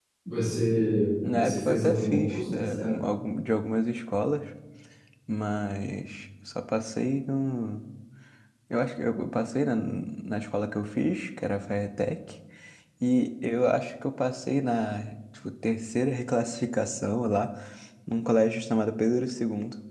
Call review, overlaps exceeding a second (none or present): present